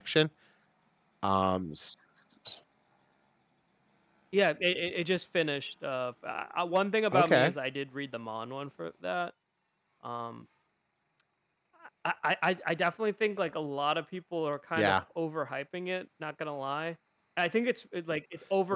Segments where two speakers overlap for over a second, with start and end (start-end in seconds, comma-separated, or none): none